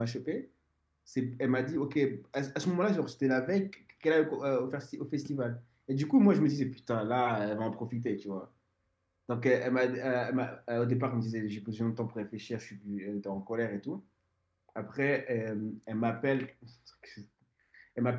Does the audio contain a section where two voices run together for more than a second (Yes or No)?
No